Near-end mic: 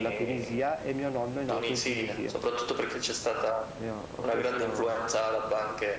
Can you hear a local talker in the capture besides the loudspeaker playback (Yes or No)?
Yes